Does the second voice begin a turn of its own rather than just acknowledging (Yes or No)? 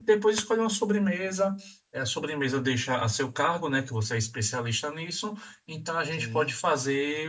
No